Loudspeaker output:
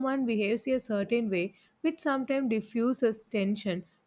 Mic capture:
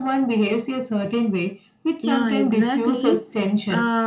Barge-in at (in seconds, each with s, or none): 2.0 s